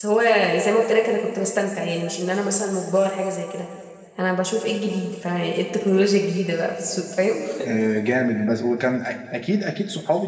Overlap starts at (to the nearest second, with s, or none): none